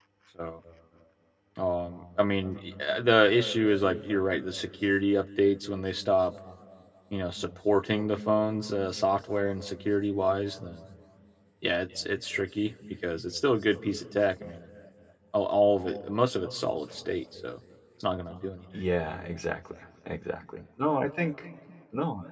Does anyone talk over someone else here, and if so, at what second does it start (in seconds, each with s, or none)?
none